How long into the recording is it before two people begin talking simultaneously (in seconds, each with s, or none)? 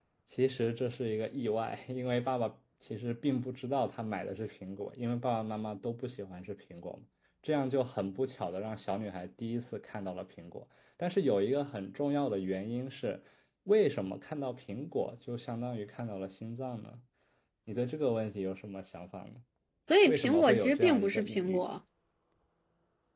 20.0 s